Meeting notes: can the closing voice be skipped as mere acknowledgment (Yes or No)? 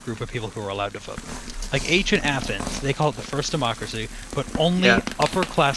Yes